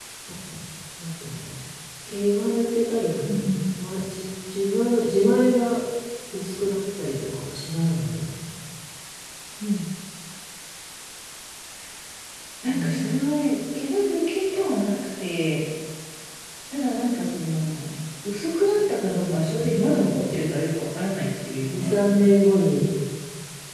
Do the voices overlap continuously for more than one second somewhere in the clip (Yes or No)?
Yes